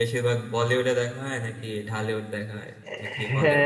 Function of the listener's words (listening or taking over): taking over